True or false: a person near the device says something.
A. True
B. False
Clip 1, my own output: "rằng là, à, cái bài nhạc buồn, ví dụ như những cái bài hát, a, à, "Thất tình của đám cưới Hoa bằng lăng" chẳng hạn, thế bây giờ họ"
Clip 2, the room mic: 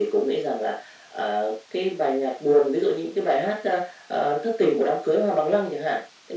B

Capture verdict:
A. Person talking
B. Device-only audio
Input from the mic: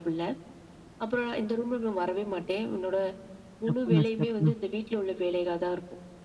A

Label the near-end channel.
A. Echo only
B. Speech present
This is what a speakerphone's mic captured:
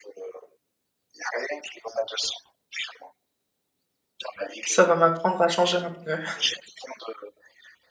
B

